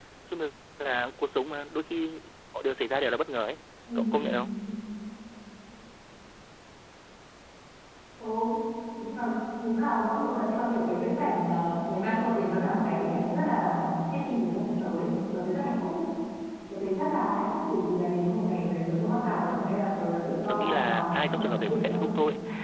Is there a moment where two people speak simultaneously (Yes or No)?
Yes